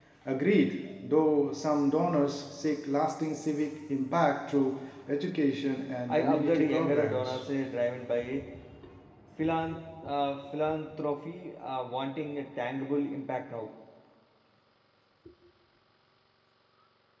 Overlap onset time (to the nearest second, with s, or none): 6 s